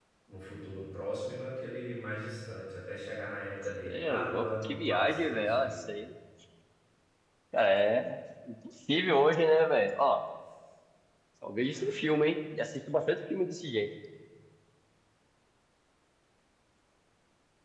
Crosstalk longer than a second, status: present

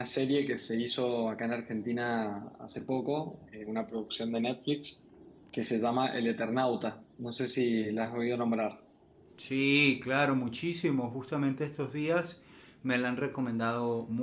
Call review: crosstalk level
none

